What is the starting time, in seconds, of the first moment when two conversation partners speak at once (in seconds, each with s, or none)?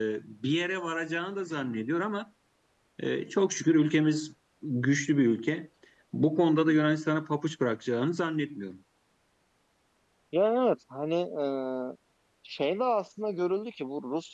none